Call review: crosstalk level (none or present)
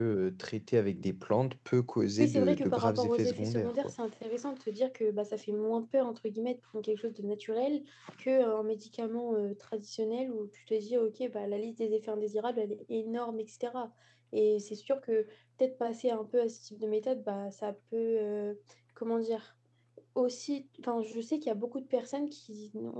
present